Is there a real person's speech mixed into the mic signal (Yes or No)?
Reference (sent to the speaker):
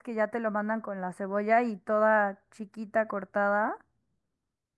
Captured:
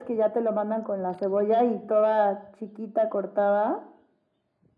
No